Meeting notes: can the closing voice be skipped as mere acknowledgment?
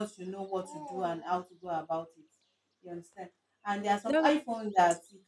Yes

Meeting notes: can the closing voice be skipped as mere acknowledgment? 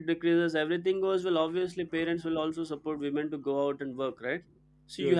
Yes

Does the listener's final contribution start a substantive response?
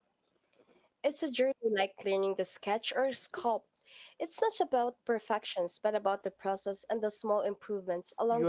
Yes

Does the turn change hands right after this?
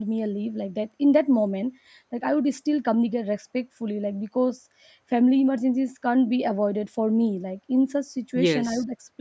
No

